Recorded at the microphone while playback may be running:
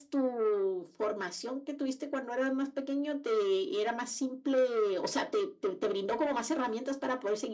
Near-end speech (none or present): none